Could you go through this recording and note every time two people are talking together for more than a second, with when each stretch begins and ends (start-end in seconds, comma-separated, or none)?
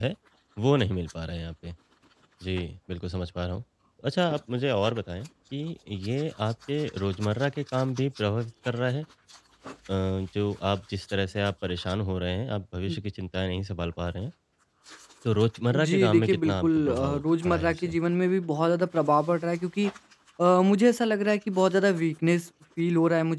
15.7-18.0